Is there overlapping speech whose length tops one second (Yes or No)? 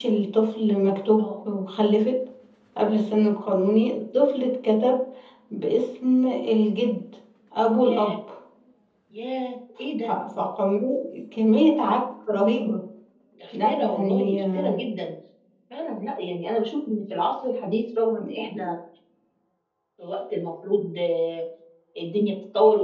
Yes